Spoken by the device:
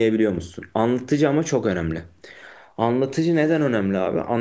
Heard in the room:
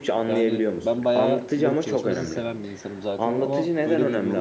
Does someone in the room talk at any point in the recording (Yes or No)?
Yes